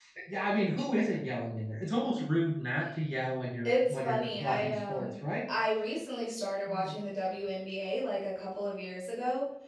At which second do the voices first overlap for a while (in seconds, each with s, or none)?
3.6 s